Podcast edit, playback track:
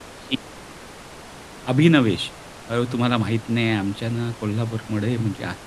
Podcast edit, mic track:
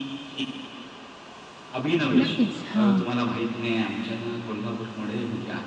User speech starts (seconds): 2.2 s

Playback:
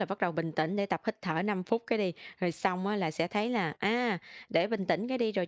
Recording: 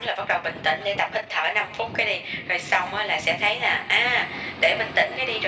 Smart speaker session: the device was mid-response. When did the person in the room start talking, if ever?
none

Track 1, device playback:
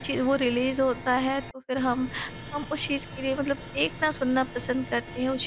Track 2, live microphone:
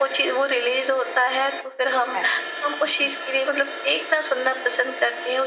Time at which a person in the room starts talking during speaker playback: 1.9 s

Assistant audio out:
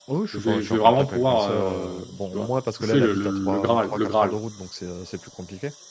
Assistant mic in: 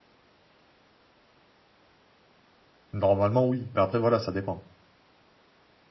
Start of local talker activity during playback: 2.9 s

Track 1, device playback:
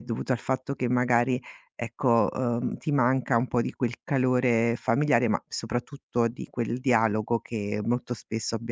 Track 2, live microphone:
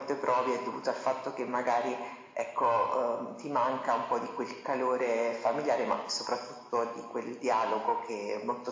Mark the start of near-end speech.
none

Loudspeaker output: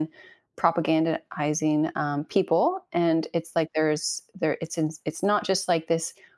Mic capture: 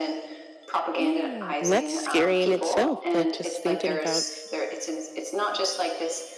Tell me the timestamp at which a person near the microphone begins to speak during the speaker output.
0.9 s

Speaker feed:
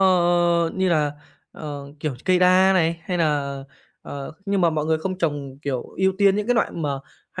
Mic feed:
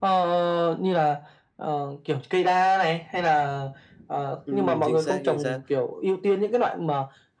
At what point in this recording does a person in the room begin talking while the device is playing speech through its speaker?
4.4 s

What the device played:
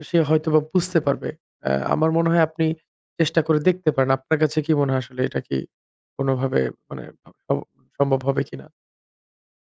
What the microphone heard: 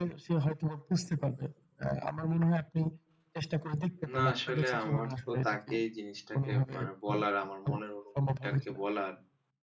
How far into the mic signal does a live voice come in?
4.1 s

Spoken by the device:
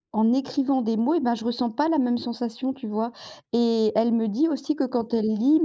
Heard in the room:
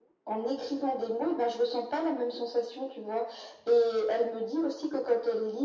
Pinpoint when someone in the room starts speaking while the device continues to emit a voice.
none

